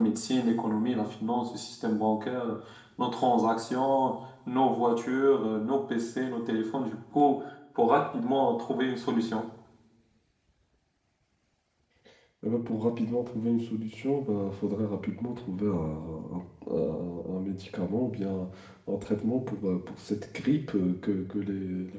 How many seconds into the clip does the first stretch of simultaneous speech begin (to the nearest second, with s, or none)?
none